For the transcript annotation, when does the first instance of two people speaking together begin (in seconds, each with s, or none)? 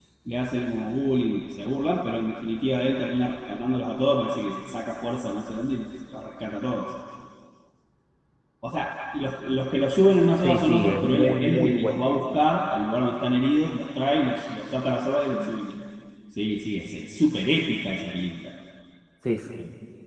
10.4 s